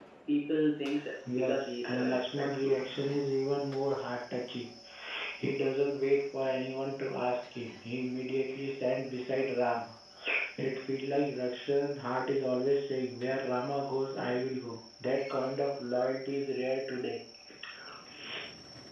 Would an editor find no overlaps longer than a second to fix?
No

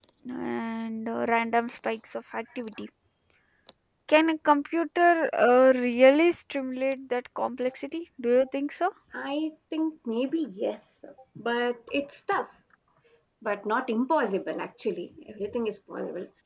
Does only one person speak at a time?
Yes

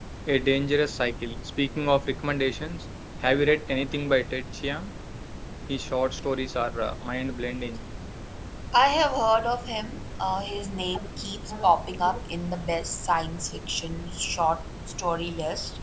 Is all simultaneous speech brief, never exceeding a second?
Yes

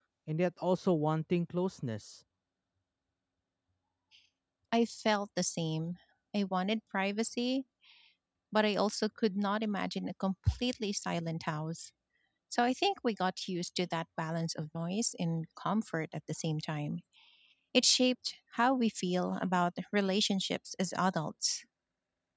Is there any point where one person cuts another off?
No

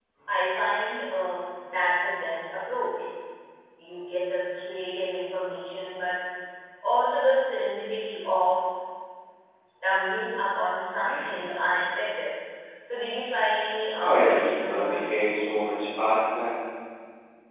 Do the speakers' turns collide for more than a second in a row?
Yes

